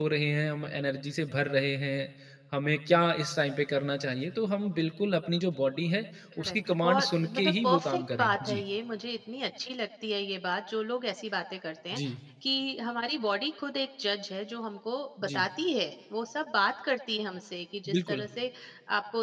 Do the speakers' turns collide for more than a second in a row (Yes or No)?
Yes